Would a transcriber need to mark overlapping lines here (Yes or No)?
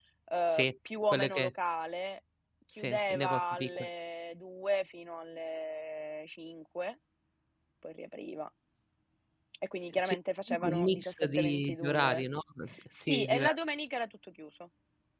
Yes